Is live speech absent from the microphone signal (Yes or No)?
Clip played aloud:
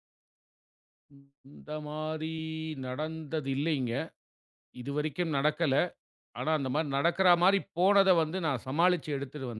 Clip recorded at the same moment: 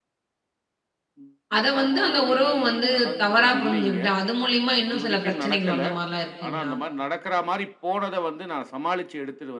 No